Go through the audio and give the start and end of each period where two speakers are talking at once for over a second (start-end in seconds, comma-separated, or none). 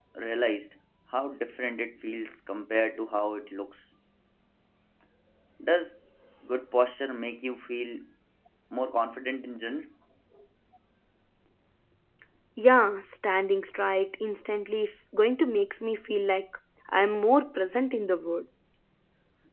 none